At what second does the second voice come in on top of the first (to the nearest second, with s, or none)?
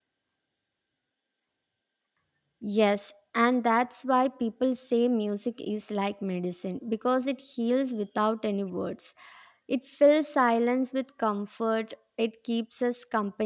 none